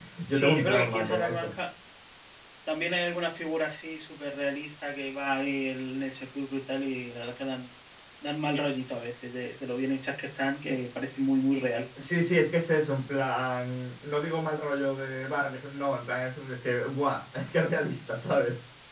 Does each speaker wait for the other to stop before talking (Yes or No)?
No